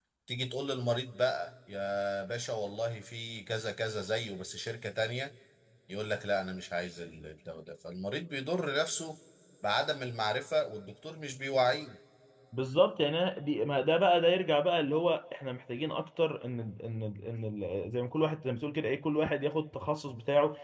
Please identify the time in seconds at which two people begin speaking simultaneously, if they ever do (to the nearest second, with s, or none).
none